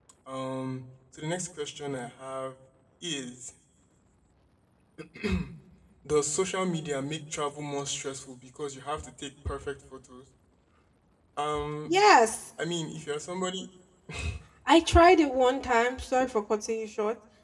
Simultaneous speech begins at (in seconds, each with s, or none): none